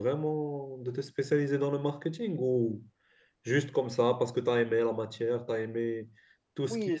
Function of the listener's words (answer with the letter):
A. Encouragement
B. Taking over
B